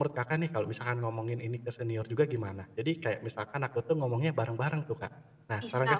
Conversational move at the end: taking over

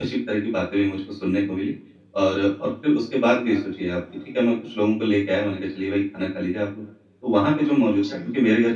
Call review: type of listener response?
listening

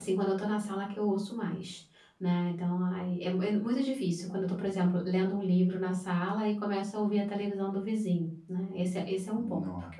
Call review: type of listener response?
listening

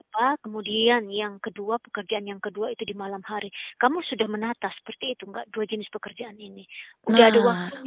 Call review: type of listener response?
taking over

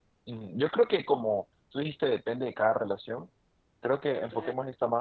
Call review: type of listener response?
listening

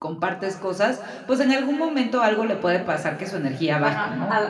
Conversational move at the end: taking over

